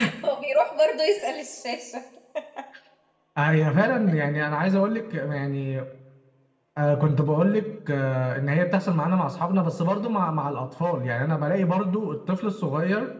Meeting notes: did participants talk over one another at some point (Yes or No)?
No